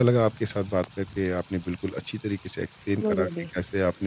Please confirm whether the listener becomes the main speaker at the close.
No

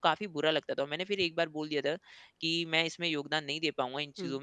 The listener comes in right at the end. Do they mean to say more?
No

